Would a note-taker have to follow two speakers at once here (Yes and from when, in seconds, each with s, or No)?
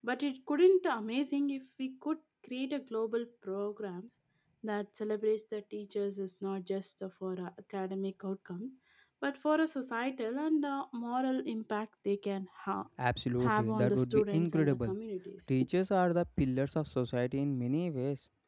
Yes, from 13.4 s